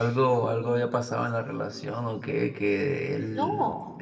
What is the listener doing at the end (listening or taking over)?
listening